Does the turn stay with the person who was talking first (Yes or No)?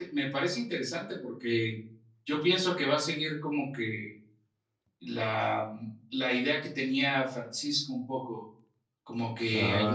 Yes